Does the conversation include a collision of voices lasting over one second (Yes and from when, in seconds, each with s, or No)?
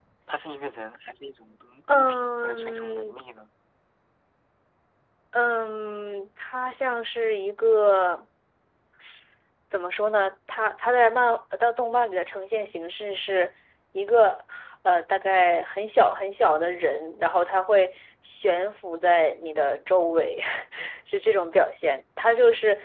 Yes, from 1.9 s